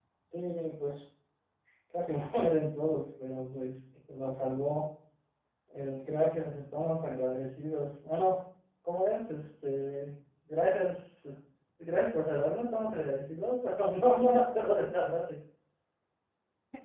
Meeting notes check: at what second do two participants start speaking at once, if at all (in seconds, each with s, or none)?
none